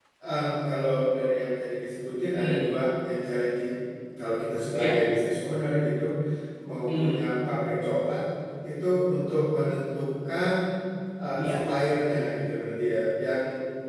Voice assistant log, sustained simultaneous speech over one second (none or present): none